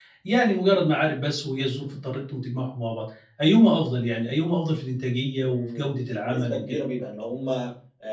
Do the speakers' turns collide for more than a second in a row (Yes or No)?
Yes